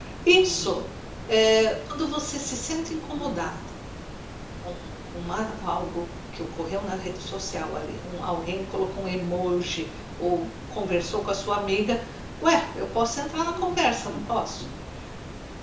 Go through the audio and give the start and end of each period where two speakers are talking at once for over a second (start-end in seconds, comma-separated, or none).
13.4-14.6